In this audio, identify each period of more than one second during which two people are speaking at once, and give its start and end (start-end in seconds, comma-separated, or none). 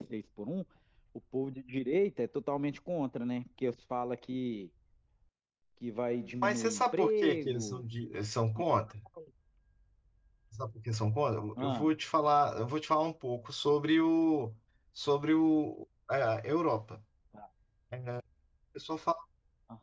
6.4-7.8